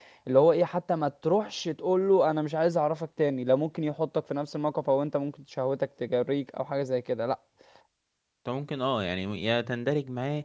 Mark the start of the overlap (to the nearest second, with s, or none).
none